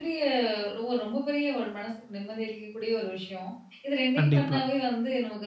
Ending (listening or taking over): listening